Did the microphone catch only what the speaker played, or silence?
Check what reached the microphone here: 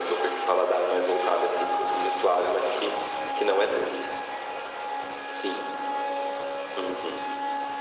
Yes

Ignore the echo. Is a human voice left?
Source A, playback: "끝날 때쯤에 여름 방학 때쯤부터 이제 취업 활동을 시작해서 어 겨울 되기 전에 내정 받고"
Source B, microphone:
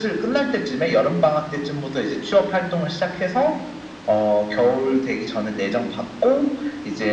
No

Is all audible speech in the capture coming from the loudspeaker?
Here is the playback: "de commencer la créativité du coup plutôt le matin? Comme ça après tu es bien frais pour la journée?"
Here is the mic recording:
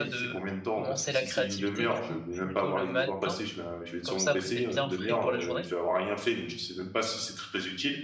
No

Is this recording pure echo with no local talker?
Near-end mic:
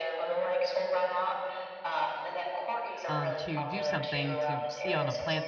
No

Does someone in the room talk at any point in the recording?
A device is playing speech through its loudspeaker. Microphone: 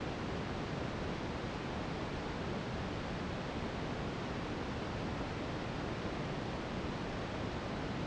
No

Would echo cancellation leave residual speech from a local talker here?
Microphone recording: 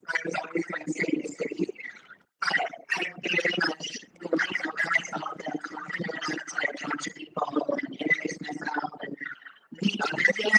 No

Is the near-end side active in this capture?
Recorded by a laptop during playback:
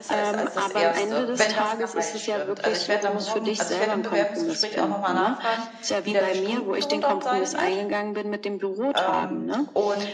Yes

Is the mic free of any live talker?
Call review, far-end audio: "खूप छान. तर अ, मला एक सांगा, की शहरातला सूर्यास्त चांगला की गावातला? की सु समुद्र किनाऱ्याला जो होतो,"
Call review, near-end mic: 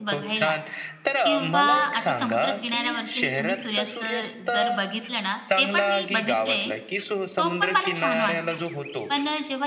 No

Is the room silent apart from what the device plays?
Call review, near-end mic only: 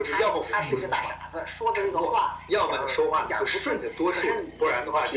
No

